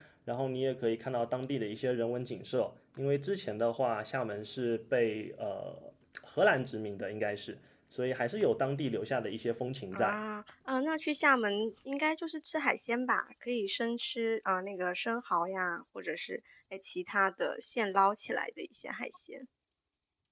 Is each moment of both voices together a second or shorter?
Yes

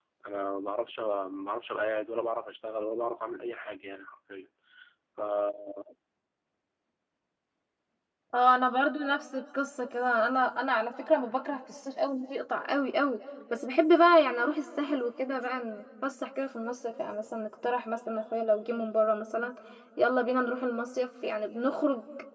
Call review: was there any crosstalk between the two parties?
No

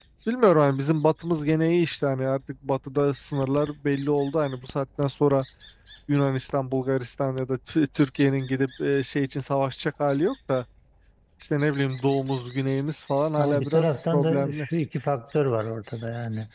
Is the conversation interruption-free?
No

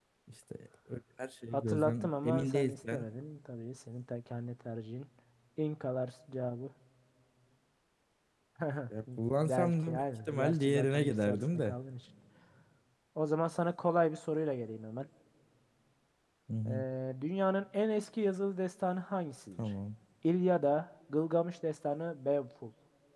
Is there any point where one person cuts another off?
Yes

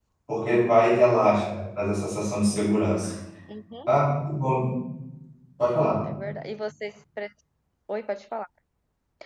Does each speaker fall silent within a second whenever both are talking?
Yes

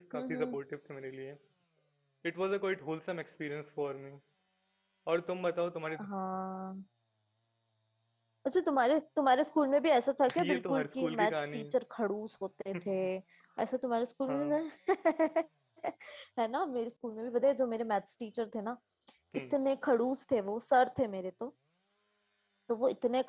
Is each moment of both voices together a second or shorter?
No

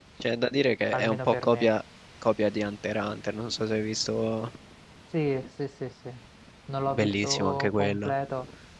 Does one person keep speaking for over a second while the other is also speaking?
Yes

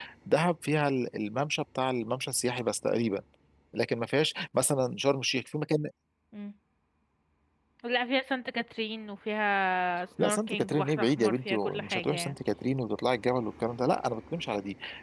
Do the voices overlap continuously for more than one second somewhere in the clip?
Yes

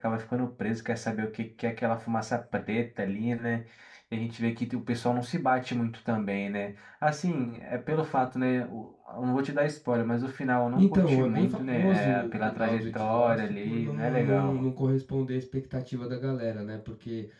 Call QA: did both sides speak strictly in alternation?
No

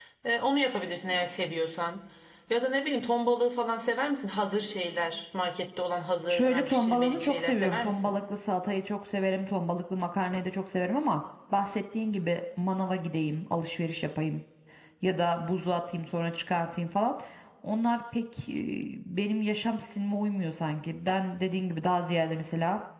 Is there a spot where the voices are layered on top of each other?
Yes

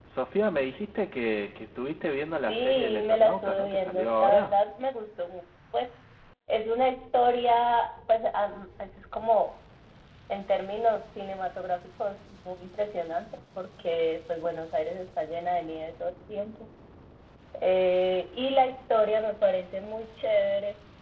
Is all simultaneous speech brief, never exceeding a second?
No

